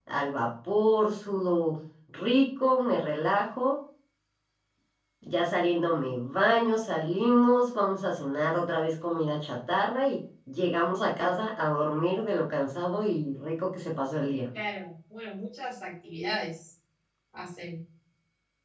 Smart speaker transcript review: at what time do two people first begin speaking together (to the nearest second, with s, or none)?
none